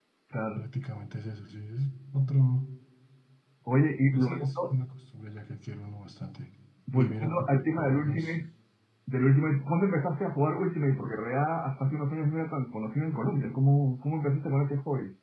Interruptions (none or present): present